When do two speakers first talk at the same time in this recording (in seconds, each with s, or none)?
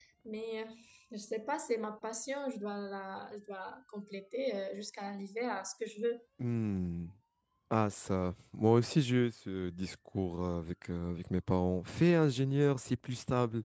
none